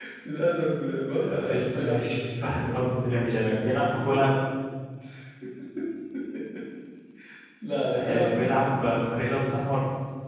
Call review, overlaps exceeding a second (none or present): present